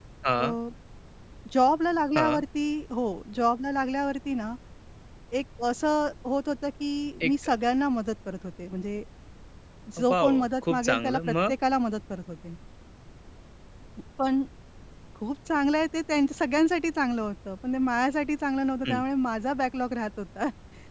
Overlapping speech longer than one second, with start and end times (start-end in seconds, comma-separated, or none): 10.1-11.5